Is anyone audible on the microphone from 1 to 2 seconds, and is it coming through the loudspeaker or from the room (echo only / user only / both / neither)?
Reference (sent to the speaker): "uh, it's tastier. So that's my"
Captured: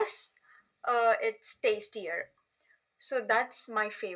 echo only